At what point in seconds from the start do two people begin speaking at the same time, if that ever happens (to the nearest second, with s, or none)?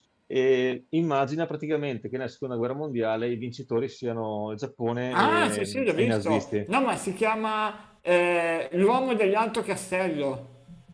5 s